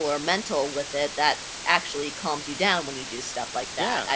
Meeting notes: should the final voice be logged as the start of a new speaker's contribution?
Yes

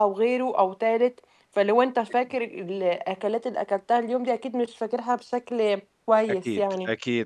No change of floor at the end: No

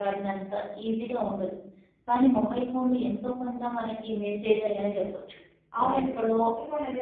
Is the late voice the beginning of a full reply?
Yes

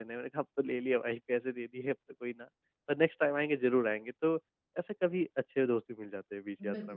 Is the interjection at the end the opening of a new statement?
Yes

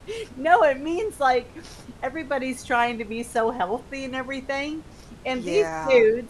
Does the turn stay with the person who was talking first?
Yes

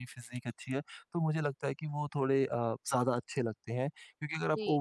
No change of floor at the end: Yes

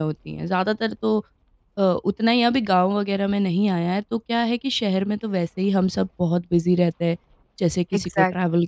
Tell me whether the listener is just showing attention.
No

